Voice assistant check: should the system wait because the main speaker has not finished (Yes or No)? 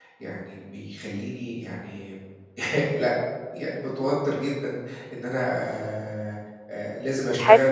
Yes